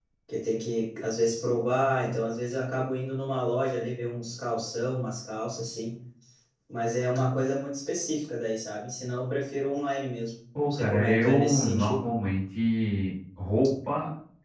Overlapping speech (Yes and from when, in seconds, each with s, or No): Yes, from 10.6 s